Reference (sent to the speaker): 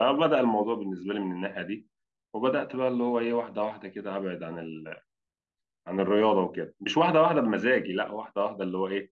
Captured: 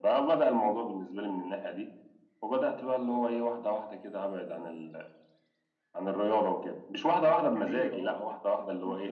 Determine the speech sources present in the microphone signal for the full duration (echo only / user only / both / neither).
both